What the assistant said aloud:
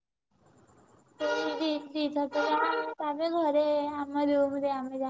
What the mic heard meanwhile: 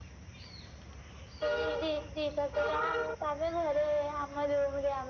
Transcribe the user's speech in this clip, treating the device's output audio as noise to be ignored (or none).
none